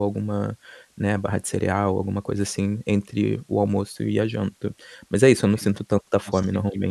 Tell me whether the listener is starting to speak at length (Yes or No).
Yes